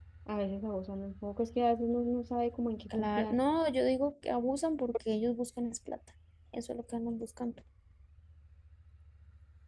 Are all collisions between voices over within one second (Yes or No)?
Yes